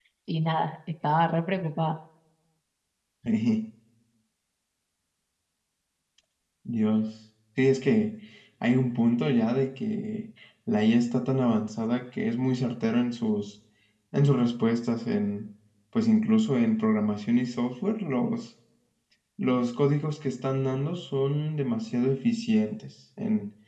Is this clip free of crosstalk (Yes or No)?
Yes